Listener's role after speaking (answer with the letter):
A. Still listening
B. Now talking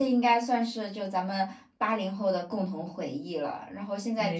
A